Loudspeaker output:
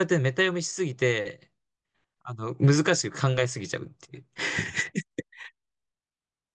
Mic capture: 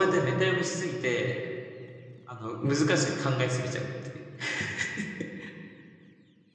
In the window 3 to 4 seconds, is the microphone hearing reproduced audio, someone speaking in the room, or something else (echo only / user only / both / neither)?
echo only